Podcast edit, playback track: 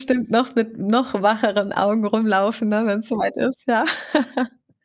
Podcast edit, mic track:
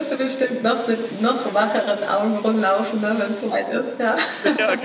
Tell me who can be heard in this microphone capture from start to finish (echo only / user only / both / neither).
both